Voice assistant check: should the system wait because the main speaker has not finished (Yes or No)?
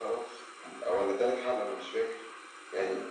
Yes